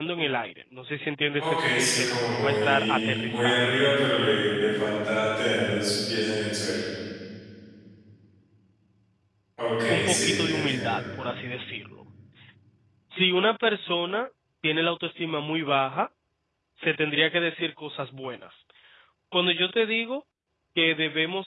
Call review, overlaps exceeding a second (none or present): present